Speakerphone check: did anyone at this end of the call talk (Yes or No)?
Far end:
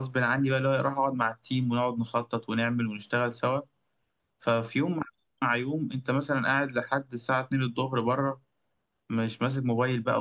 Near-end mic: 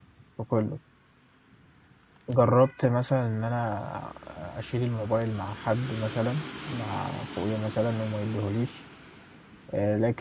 Yes